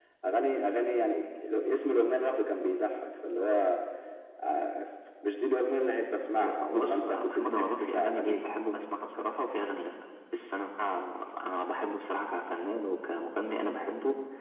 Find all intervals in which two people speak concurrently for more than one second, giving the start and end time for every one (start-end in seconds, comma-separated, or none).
6.4-8.4